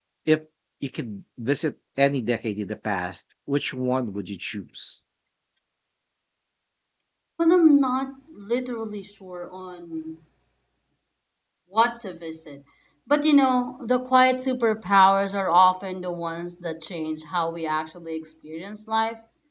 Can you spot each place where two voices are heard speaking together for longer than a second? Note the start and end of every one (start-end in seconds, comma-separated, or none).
none